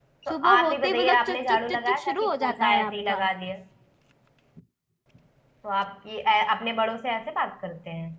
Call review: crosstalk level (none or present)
present